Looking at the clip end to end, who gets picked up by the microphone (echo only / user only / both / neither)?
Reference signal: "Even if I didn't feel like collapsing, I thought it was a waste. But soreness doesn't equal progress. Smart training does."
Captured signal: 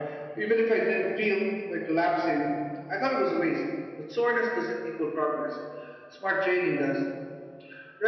echo only